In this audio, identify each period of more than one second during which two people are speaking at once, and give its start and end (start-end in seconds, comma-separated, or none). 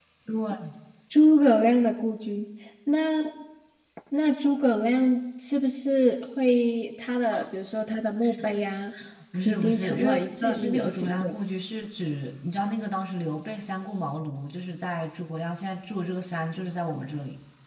9.4-11.3